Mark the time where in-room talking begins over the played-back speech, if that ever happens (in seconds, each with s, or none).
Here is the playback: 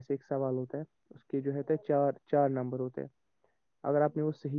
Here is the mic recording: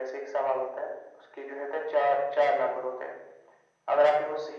none